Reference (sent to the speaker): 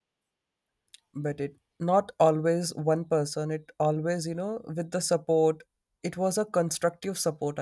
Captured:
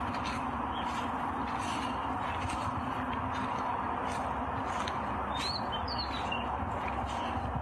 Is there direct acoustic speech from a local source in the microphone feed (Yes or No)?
No